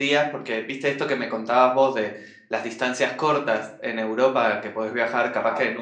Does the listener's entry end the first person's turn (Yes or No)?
No